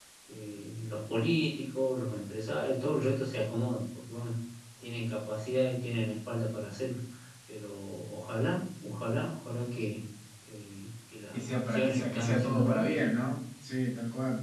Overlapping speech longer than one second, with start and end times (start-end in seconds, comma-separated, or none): 11.3-12.8